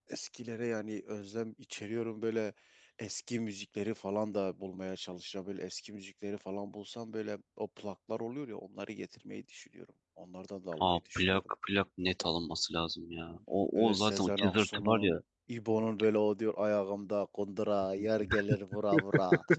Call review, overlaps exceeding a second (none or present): present